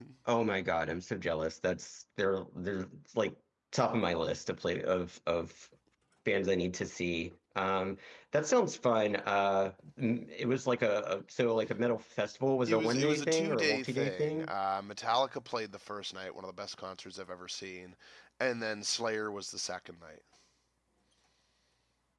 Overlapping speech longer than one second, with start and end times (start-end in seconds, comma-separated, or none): 12.7-14.5